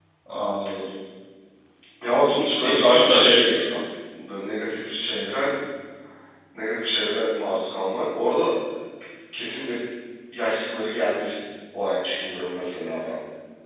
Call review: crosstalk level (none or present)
present